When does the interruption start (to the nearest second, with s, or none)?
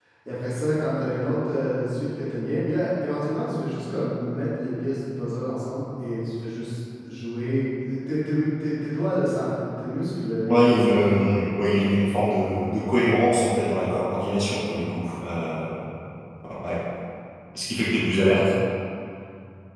10 s